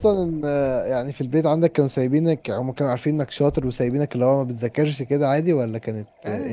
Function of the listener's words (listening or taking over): taking over